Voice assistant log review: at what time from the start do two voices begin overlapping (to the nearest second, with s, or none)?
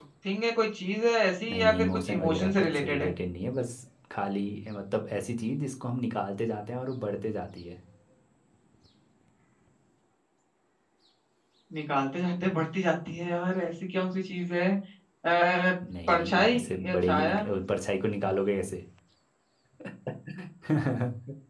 2 s